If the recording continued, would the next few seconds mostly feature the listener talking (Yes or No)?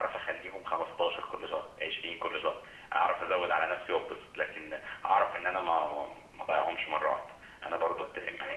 Yes